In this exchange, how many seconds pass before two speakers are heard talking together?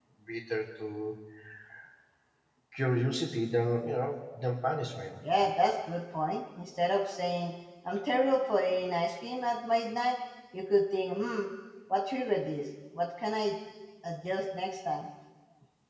none

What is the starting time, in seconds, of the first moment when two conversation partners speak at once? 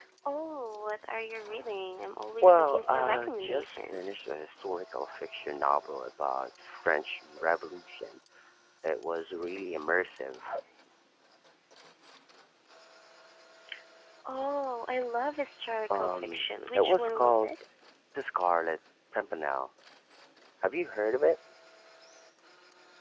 2 s

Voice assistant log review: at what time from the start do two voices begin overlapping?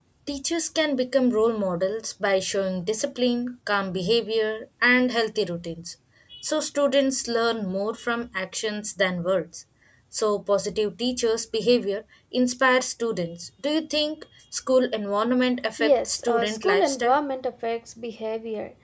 16 s

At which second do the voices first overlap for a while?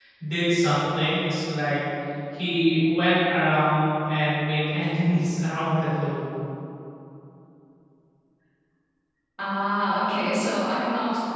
none

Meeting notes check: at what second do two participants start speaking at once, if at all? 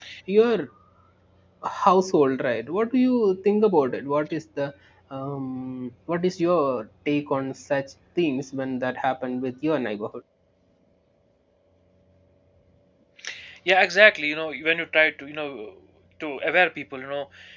none

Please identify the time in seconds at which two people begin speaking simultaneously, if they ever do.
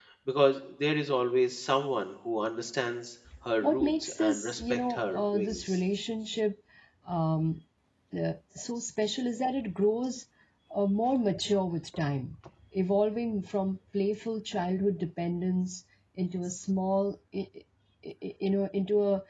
4 s

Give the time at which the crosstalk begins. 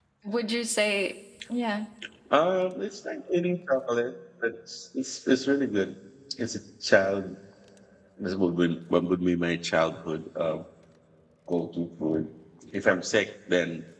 none

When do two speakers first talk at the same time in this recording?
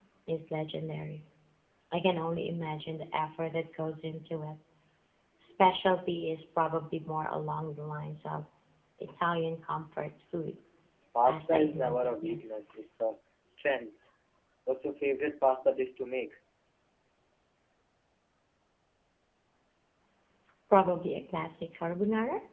11 s

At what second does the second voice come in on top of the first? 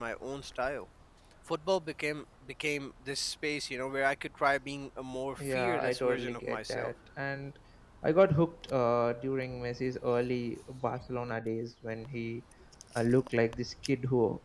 5 s

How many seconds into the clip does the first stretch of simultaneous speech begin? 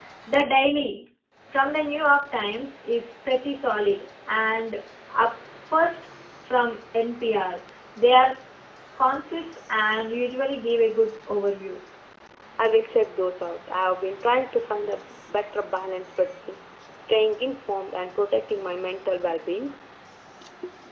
none

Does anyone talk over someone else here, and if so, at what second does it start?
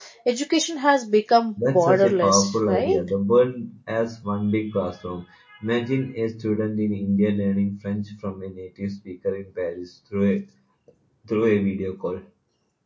2 s

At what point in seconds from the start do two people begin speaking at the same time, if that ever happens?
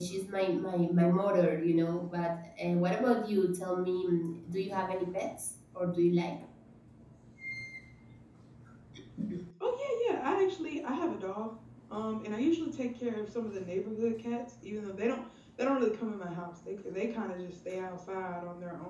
none

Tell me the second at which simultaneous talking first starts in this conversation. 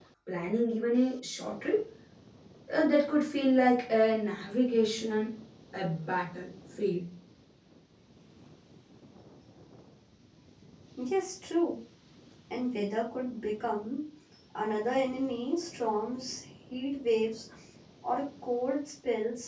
none

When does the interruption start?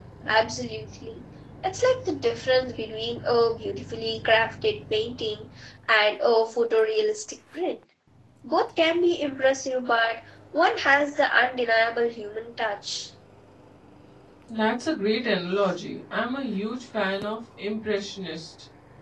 none

